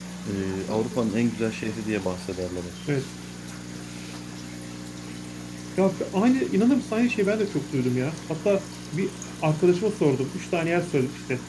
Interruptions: none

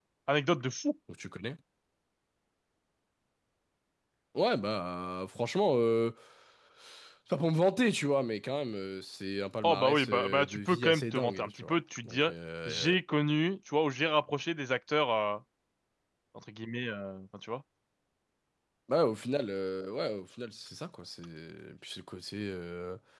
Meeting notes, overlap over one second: present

